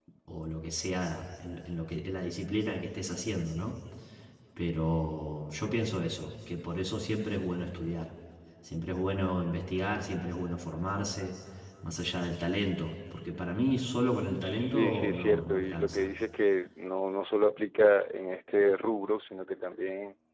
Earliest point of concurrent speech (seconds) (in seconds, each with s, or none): 14.4 s